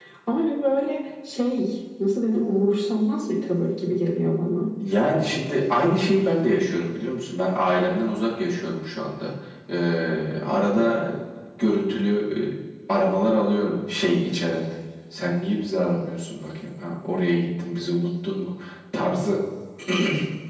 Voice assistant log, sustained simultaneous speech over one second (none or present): none